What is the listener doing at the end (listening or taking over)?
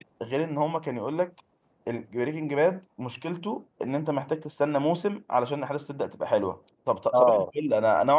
listening